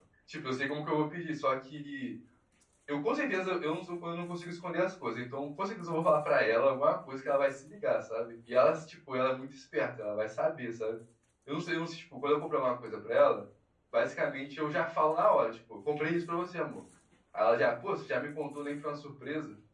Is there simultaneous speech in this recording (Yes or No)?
No